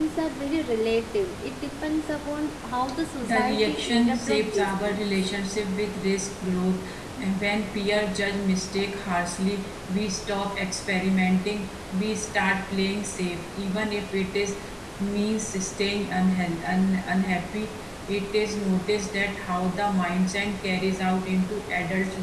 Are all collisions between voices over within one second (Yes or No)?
No